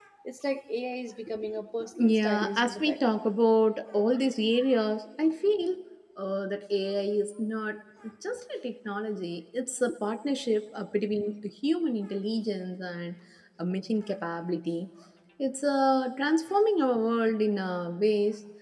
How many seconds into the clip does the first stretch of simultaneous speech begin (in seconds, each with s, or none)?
1.8 s